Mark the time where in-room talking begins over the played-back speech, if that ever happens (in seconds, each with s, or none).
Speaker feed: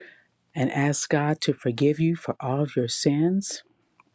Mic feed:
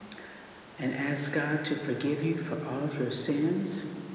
none